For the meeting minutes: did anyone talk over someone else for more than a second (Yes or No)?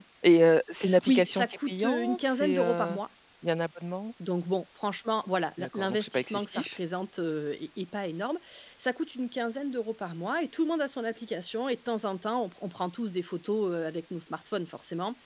Yes